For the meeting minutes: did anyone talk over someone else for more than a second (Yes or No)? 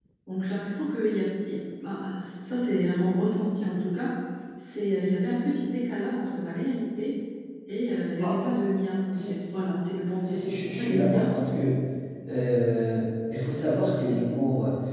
No